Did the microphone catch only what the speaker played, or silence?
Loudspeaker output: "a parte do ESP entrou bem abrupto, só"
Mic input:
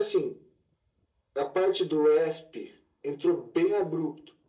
Yes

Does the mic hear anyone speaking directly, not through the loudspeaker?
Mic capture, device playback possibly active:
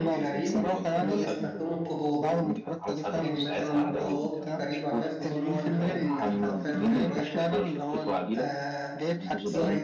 Yes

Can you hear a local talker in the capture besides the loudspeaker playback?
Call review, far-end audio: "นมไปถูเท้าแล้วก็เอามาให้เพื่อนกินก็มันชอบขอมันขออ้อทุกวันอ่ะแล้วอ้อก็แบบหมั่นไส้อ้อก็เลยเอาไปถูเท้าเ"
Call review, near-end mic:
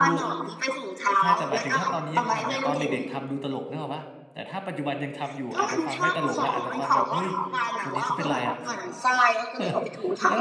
Yes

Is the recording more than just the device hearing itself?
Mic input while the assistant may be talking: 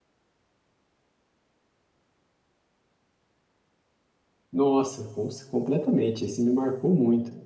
Yes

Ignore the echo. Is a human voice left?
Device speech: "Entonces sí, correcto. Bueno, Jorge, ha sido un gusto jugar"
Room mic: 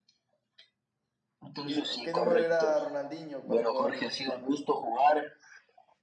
Yes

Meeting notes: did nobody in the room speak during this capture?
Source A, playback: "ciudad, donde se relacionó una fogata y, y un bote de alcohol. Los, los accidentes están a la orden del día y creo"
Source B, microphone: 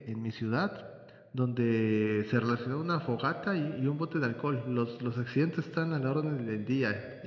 Yes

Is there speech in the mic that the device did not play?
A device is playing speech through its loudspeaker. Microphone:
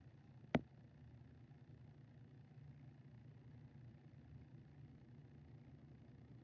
No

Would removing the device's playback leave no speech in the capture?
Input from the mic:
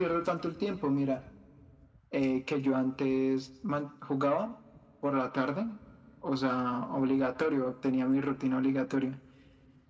Yes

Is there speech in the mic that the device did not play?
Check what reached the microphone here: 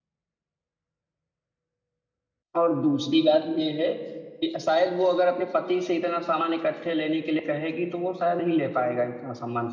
Yes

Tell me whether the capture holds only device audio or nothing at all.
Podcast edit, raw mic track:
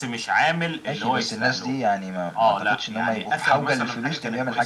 Yes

